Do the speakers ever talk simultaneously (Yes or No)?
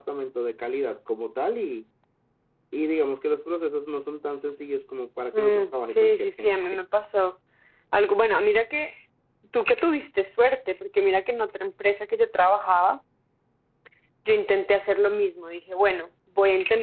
Yes